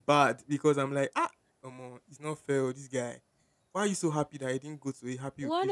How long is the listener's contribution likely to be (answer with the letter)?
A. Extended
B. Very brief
A